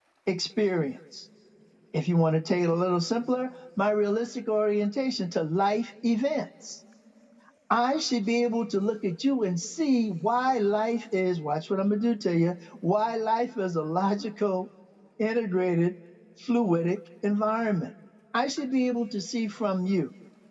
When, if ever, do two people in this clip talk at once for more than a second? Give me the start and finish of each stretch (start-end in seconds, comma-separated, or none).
none